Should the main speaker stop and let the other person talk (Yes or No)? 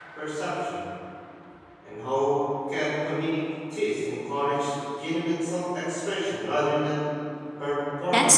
Yes